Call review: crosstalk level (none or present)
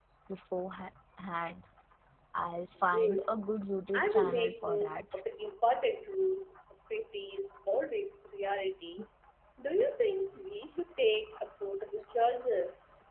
present